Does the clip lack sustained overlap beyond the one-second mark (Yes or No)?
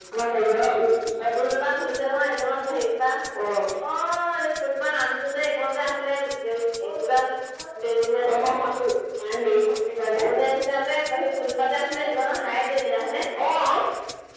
Yes